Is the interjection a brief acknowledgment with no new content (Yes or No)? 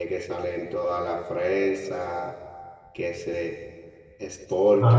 Yes